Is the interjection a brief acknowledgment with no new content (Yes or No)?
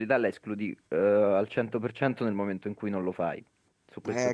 No